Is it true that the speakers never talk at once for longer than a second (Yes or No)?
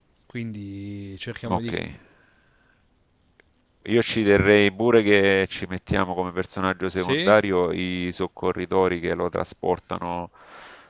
Yes